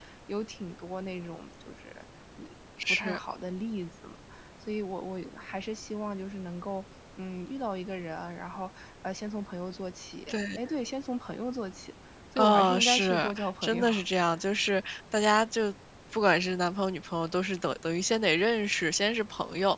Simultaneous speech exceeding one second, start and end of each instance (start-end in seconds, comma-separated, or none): 12.4-13.8